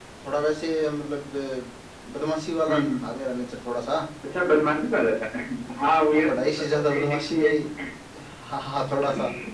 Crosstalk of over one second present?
Yes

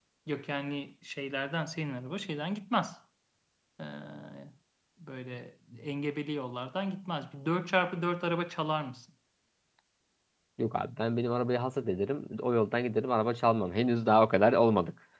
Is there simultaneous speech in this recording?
No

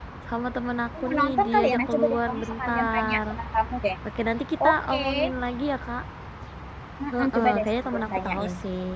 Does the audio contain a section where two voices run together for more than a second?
Yes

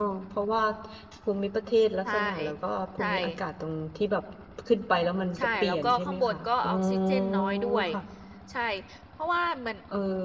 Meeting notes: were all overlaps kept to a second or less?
No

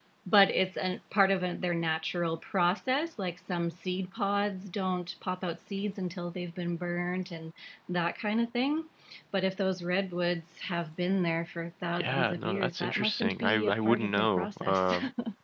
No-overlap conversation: No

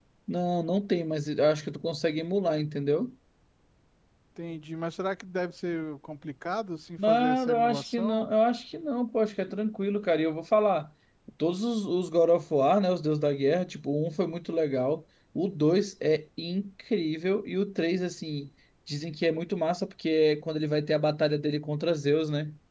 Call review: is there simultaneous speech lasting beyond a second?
Yes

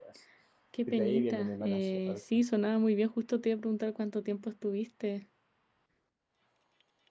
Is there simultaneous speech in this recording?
Yes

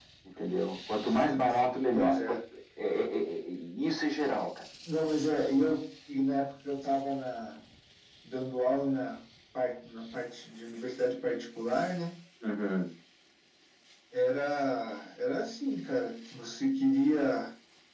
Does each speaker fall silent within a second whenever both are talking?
No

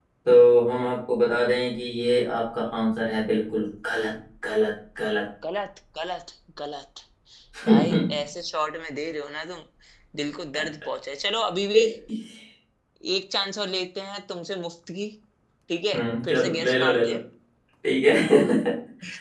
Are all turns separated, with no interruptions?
No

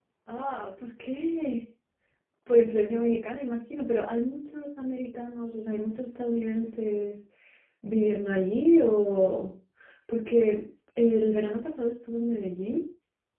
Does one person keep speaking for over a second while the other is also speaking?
No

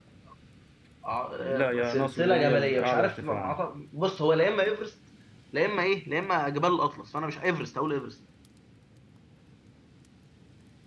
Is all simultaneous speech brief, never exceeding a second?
No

